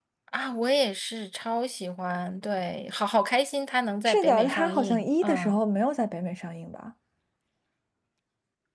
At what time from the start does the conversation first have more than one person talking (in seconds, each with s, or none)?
4.0 s